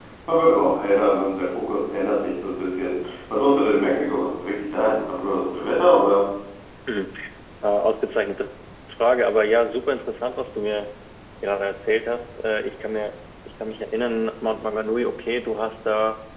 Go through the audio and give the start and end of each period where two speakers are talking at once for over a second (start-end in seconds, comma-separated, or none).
none